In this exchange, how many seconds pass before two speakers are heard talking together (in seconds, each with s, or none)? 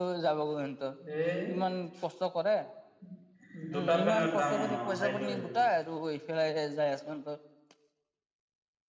3.5 s